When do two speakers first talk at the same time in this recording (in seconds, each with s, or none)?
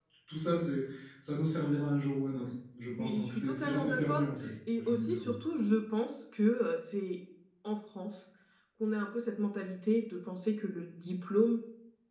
3.0 s